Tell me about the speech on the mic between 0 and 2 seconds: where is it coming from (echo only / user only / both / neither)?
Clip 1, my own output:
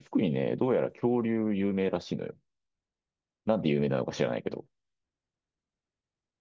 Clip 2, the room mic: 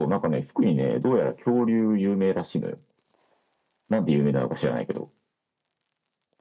echo only